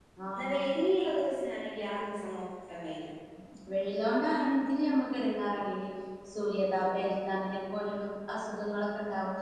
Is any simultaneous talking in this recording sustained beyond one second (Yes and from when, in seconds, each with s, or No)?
No